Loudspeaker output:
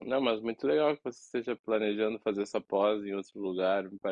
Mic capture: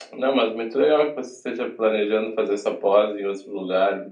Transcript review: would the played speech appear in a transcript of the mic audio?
Yes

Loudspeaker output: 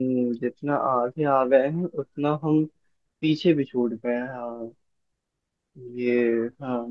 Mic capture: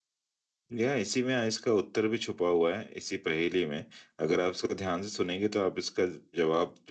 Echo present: No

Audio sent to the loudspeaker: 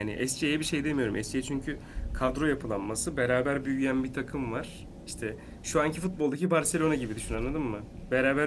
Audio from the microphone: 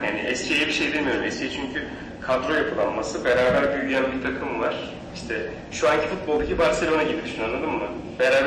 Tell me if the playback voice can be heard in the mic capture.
Yes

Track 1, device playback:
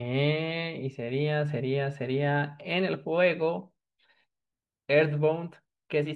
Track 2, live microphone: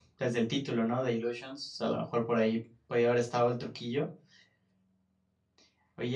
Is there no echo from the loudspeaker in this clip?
Yes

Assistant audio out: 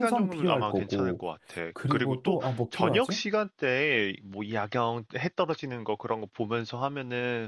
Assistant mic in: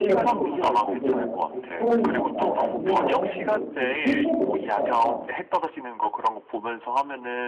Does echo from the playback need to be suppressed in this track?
Yes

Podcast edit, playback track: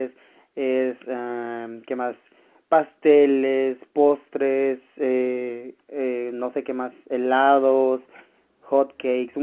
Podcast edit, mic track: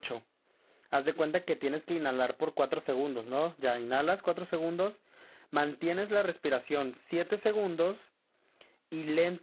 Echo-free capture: Yes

